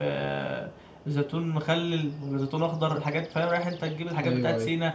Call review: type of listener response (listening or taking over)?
listening